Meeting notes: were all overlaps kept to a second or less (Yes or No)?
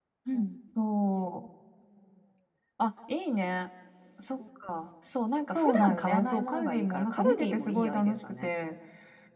No